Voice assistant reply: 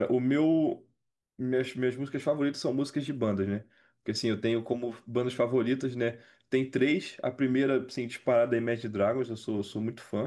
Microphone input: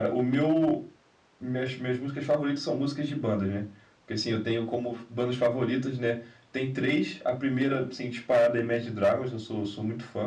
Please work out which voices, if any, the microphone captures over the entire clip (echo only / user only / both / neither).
echo only